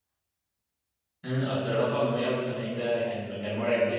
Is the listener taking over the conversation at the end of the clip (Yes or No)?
Yes